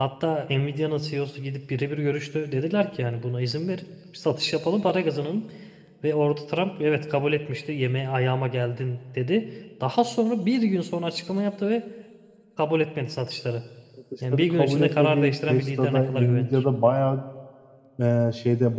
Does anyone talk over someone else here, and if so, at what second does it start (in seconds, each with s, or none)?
14.3 s